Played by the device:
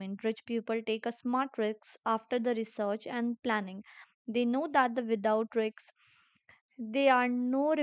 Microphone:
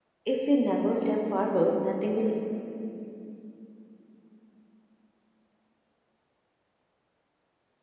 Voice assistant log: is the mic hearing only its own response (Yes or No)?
No